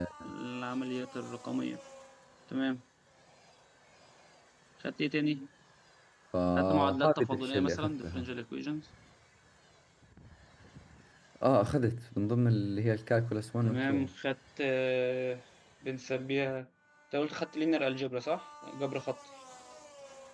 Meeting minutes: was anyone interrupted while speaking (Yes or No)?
Yes